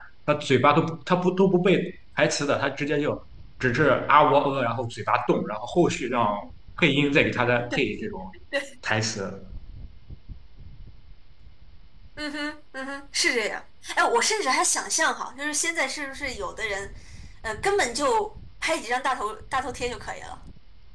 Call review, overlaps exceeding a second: none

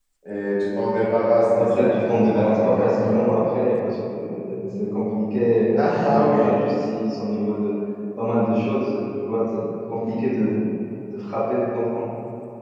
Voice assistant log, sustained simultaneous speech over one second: present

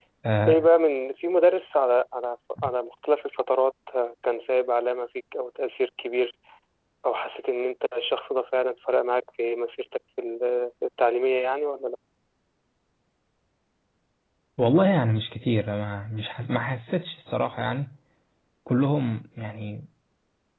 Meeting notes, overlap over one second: none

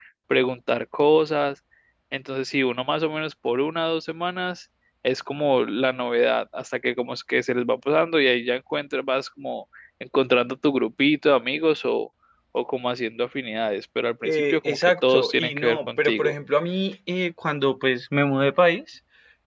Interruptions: present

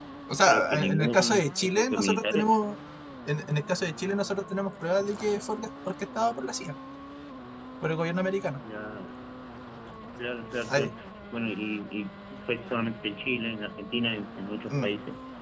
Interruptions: present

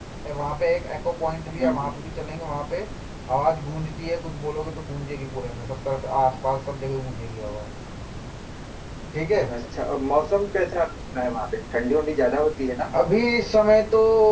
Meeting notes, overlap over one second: none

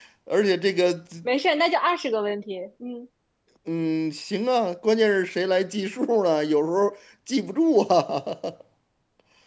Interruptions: none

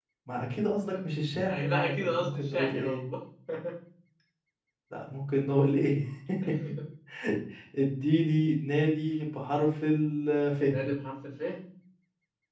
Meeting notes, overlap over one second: present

